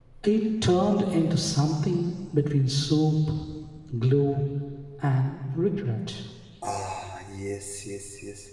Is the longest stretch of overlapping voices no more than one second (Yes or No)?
Yes